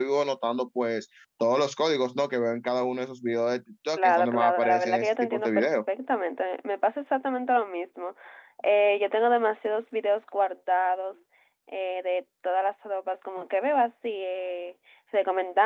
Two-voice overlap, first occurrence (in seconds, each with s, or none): 4.0 s